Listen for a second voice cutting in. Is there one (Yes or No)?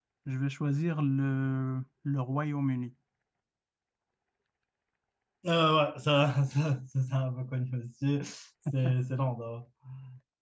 No